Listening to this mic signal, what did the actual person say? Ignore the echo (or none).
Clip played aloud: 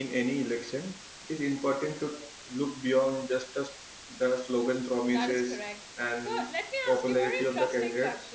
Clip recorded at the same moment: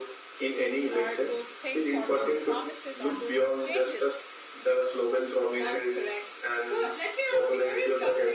are those things or those promises or those changes